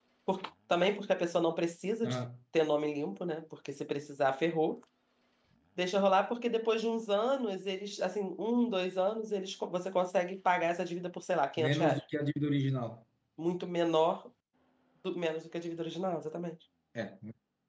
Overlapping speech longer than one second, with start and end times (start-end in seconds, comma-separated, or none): none